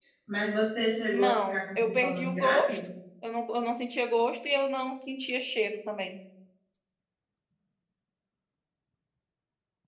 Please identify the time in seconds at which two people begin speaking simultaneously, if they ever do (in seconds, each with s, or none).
1.1 s